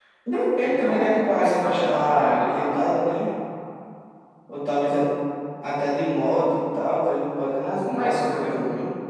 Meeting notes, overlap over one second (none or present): present